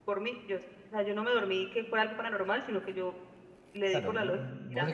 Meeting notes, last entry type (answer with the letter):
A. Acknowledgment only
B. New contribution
B